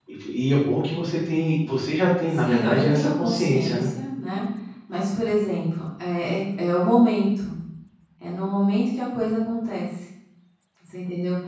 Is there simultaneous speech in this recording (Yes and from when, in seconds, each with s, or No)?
Yes, from 2.3 s